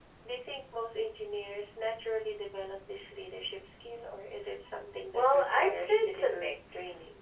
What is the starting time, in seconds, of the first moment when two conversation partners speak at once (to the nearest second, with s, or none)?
5 s